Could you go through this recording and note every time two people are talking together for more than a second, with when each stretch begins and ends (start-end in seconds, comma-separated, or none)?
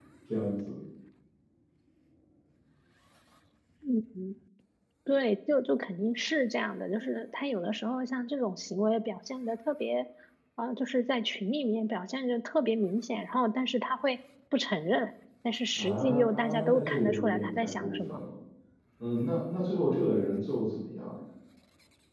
15.8-18.2